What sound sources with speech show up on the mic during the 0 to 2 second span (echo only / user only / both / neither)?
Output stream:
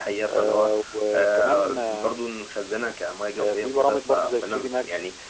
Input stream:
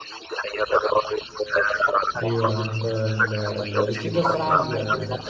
echo only